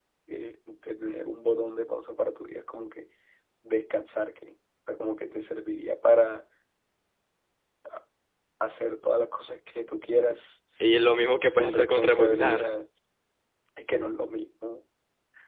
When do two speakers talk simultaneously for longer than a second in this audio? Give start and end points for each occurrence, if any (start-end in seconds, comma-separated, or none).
11.5-12.8